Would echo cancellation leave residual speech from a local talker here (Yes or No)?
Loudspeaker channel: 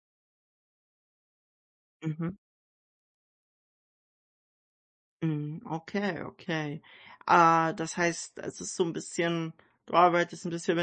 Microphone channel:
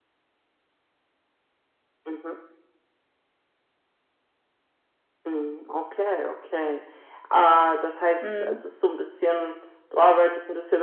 Yes